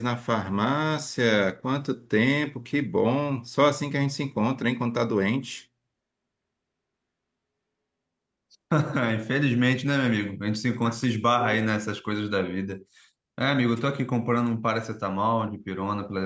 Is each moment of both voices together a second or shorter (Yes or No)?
Yes